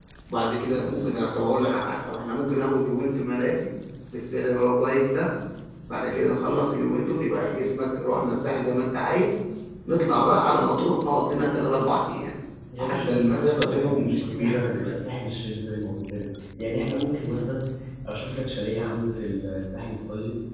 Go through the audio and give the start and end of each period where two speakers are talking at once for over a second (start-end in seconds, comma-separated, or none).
12.8-14.9